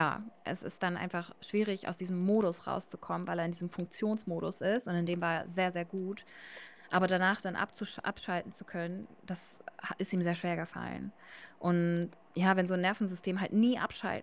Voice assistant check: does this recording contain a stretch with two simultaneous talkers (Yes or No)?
No